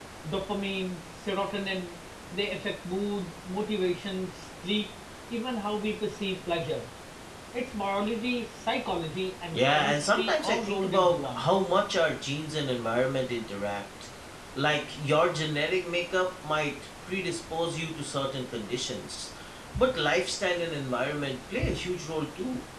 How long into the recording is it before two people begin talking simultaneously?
9.5 s

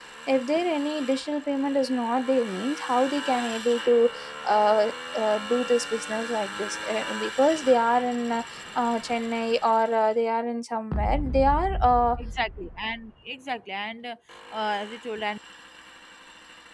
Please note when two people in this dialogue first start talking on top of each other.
none

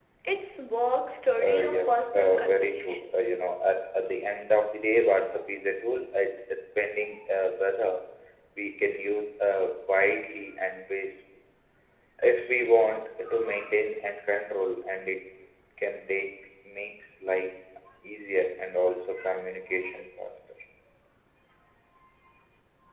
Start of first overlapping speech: 1.4 s

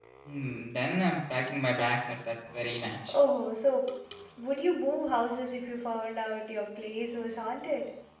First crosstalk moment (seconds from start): none

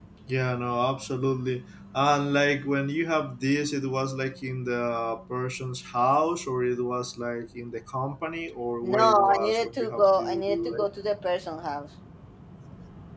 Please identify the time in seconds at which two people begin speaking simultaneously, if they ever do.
8.8 s

